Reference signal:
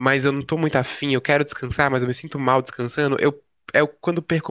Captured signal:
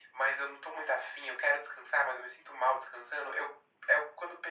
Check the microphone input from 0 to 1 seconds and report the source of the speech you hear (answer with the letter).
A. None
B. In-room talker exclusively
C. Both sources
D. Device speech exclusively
D